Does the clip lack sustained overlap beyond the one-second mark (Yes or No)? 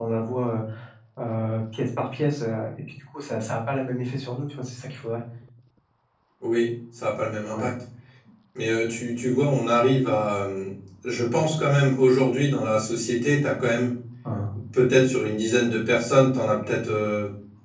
Yes